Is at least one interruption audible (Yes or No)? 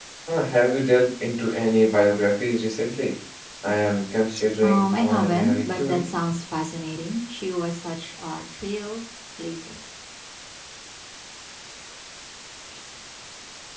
Yes